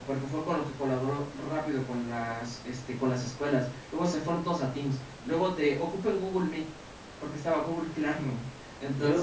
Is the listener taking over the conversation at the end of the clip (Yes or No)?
Yes